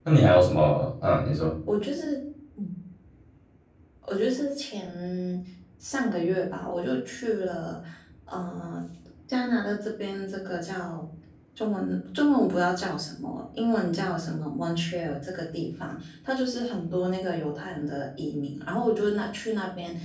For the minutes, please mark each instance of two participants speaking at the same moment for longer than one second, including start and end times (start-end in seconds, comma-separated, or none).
none